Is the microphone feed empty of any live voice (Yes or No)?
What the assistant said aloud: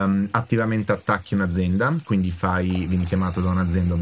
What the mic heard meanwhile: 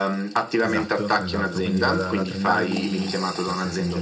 No